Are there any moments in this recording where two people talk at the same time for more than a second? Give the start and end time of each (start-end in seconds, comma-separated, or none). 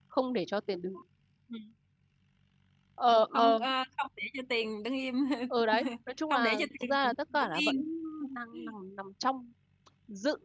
6.3-7.8